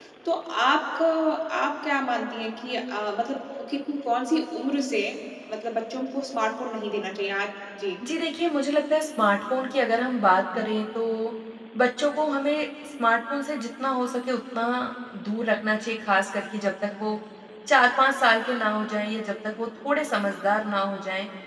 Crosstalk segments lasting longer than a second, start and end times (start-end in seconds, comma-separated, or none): none